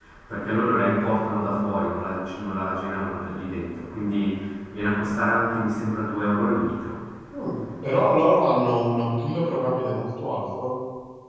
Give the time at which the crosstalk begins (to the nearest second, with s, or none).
none